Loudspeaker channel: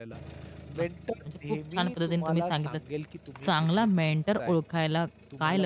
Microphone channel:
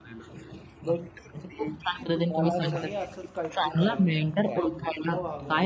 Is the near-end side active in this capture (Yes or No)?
Yes